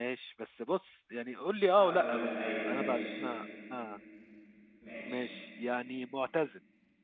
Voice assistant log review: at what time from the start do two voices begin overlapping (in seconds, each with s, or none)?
1.8 s